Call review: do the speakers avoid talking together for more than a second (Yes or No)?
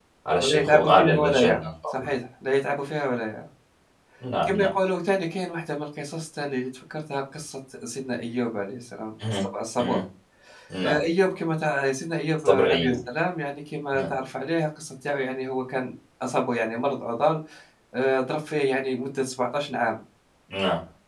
No